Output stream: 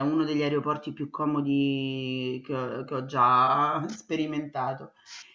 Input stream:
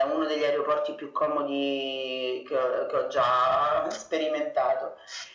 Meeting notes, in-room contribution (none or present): none